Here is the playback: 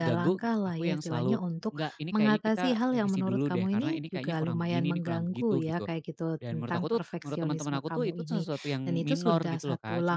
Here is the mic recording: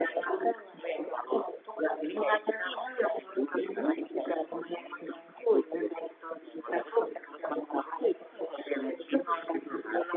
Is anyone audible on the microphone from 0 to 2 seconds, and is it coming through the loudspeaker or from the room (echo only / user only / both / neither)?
echo only